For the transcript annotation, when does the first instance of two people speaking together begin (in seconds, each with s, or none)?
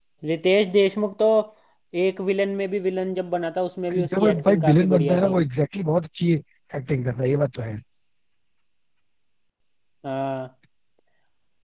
3.9 s